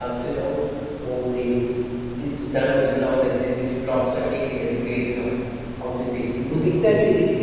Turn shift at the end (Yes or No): Yes